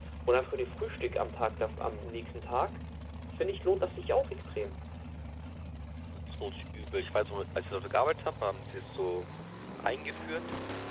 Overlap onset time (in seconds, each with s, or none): none